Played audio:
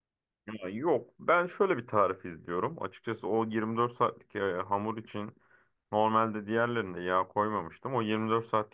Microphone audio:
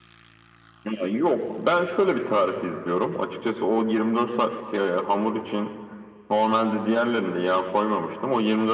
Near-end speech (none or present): none